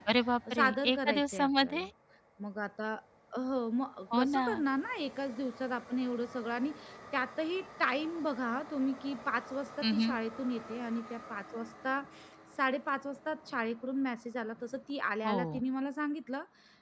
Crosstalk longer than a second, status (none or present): present